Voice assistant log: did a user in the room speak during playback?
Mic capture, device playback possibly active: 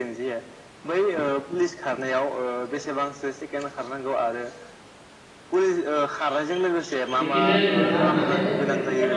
Yes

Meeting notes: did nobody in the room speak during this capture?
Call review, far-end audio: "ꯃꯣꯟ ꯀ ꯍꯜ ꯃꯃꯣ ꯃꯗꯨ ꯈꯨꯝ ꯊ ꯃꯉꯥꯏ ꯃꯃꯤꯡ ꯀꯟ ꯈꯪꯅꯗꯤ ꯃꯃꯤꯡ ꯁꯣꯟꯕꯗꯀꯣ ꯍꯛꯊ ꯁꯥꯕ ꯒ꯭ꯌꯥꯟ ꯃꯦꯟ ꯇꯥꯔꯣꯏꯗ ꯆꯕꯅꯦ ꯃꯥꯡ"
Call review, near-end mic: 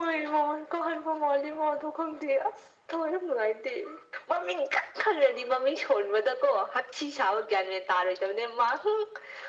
Yes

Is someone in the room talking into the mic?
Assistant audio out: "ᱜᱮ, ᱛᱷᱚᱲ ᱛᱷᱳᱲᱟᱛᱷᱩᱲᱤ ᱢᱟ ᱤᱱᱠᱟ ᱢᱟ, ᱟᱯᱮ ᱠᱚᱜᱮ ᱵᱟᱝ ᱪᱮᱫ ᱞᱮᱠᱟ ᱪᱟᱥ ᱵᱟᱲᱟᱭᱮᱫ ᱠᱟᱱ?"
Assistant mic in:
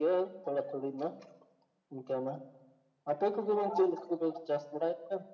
No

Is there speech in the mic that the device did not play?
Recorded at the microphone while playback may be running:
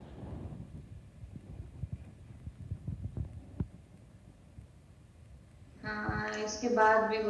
Yes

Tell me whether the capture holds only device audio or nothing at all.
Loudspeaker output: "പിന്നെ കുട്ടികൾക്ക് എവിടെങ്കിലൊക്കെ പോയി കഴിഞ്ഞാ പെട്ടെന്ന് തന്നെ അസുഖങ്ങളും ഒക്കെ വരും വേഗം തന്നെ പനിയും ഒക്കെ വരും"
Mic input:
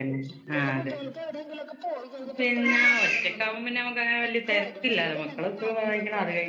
No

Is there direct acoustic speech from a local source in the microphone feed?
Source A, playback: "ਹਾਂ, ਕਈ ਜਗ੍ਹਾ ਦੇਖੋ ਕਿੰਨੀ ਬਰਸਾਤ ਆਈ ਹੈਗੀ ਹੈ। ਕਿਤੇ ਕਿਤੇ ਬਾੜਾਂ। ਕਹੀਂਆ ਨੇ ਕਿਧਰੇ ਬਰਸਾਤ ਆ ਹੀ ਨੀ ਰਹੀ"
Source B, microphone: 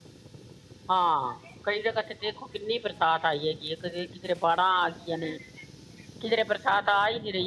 No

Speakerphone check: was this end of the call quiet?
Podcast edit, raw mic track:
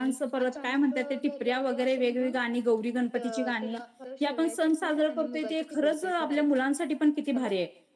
No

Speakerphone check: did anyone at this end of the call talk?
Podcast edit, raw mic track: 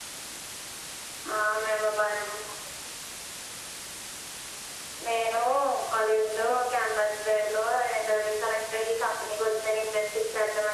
No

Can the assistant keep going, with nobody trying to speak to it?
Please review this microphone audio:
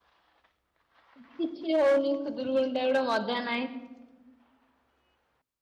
No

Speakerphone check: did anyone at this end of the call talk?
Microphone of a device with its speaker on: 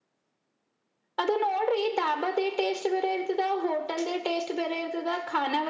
No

